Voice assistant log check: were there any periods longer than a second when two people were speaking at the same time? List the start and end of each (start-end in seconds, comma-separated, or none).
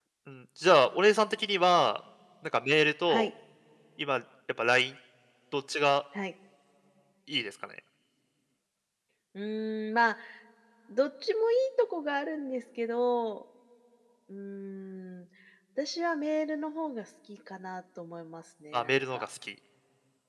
none